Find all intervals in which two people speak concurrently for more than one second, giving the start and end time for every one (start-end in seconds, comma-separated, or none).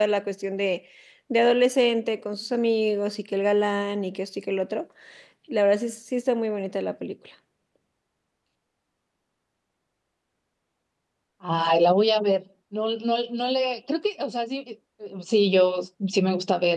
none